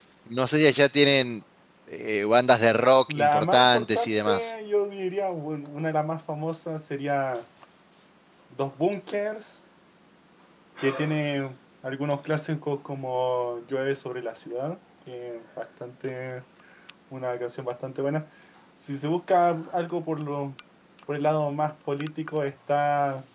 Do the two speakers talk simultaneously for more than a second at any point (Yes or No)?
Yes